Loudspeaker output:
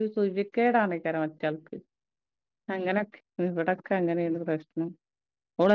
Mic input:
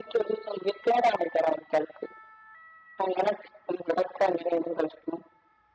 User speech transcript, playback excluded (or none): none